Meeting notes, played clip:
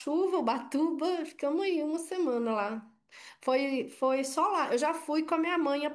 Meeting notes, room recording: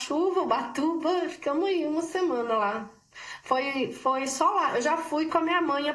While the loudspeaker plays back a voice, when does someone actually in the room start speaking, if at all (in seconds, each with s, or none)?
none